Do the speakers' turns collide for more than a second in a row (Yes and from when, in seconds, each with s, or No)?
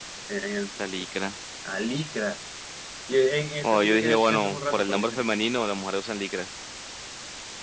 Yes, from 3.6 s